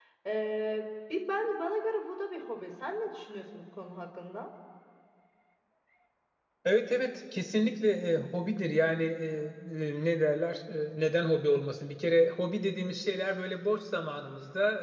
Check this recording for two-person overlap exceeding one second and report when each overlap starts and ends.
none

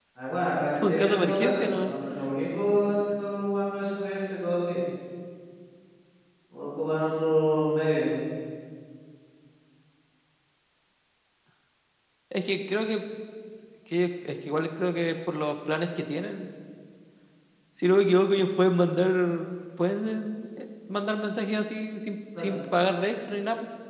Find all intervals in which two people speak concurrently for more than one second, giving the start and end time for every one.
0.7-1.9

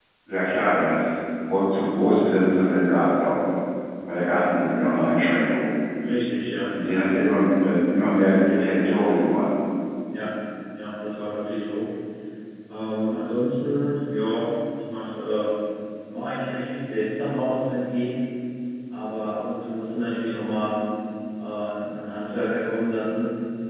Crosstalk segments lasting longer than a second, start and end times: none

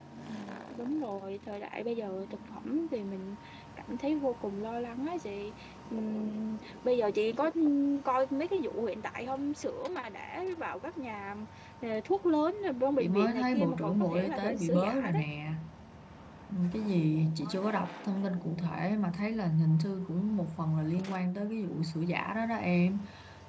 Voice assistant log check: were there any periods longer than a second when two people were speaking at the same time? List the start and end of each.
13.0-15.2

